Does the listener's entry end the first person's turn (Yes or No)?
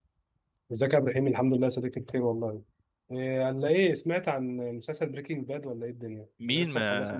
Yes